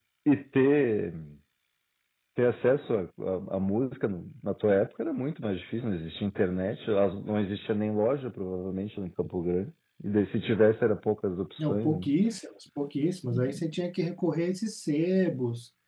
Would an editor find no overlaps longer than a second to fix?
Yes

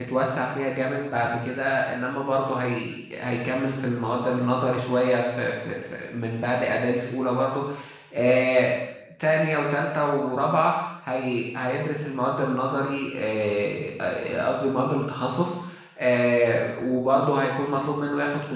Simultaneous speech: No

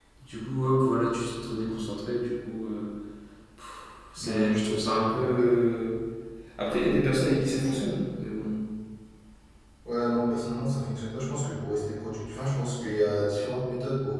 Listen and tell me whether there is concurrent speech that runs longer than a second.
Yes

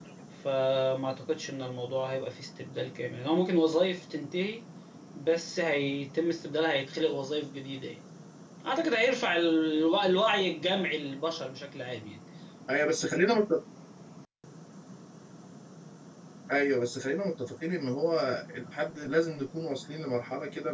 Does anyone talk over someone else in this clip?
No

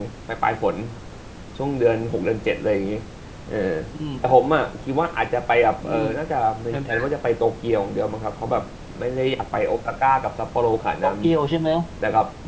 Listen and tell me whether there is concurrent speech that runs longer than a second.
No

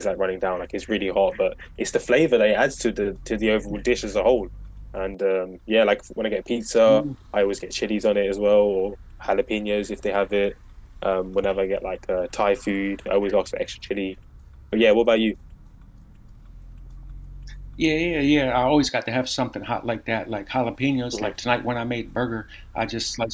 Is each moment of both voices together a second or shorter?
Yes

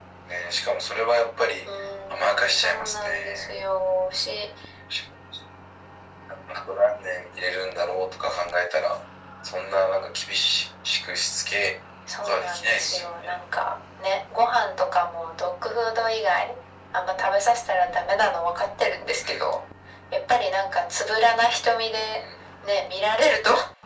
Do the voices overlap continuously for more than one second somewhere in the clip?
Yes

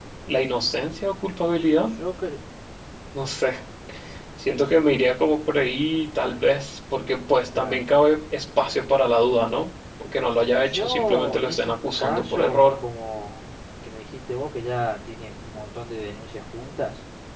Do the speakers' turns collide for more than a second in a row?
Yes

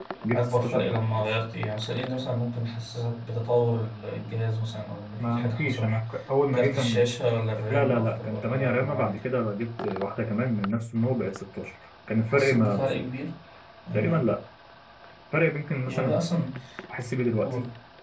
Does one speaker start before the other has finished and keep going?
Yes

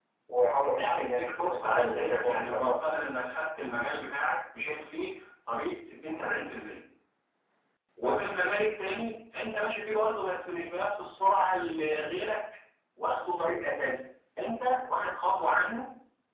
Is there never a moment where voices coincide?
No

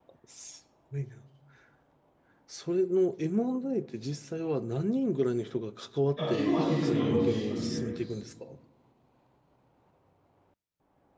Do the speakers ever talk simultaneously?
Yes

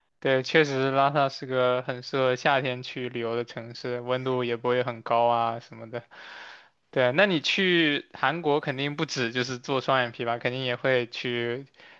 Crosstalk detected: No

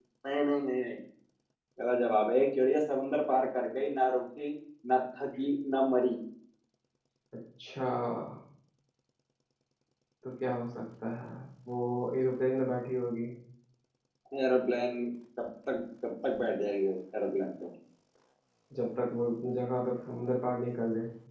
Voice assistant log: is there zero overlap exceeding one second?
Yes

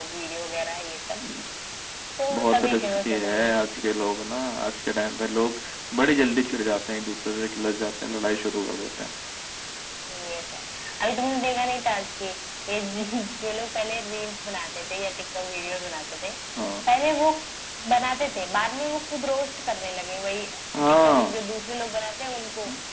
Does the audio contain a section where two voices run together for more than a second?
Yes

